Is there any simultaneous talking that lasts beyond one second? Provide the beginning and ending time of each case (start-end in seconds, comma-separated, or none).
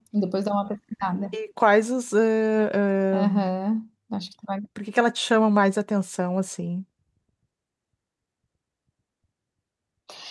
none